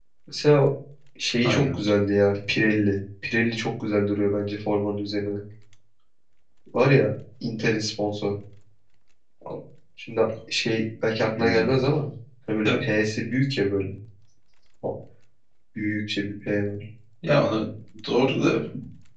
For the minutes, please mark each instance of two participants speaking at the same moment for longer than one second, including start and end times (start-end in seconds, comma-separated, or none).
none